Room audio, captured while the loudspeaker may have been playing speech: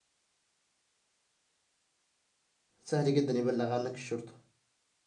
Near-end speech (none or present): present